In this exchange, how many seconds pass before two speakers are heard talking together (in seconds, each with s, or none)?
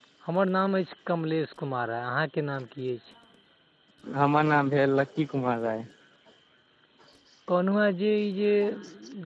none